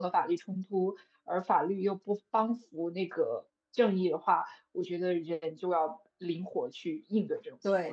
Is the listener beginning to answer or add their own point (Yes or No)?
Yes